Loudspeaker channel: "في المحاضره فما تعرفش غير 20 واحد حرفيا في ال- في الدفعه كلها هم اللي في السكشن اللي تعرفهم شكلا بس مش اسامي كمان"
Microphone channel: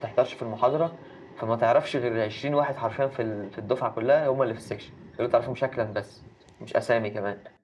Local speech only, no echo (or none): none